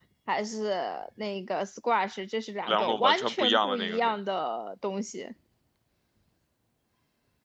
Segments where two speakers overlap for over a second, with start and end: 2.7-4.1

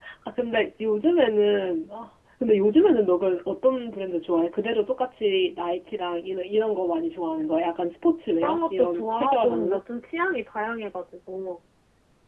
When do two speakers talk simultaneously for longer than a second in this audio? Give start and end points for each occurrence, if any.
8.4-9.8

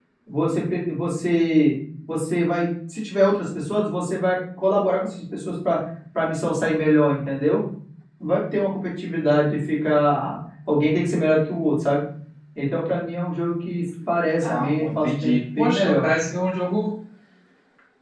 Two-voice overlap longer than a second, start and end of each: 14.4-16.1

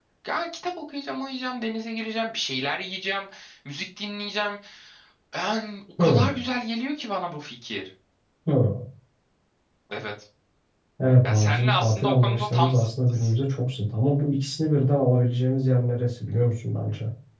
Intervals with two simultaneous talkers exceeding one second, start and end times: 11.2-13.3

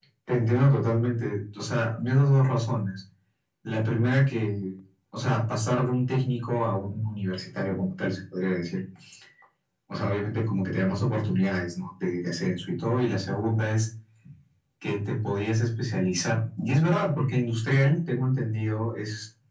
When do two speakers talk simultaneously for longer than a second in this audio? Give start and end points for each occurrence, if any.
none

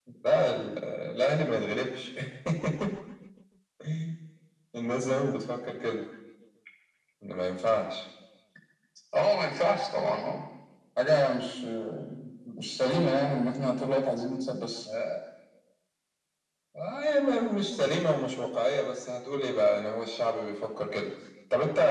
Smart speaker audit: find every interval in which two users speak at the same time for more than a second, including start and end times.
none

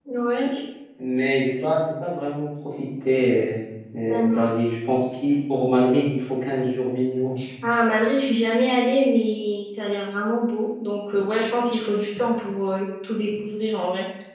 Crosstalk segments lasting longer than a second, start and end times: none

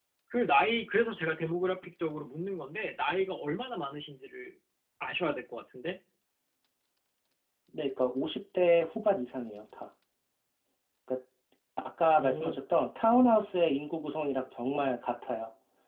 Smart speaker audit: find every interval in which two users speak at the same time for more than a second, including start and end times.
none

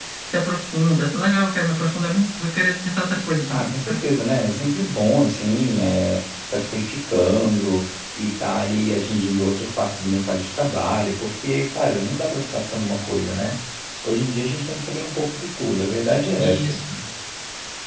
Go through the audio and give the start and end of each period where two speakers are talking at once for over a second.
none

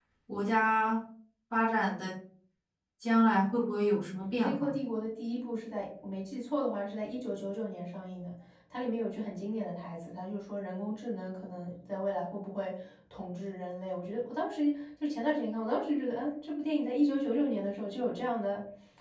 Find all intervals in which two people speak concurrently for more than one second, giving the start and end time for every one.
none

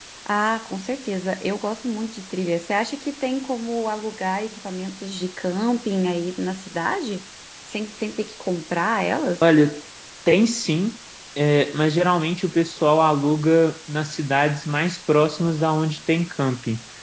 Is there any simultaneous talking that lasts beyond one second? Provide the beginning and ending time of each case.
none

